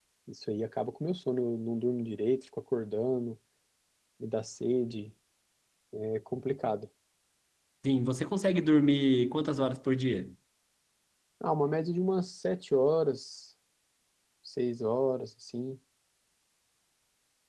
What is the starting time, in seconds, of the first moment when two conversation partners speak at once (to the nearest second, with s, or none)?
none